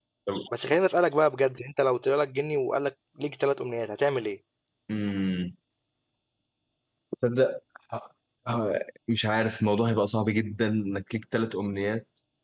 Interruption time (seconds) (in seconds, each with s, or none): none